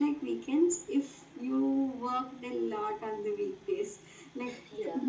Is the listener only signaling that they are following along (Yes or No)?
Yes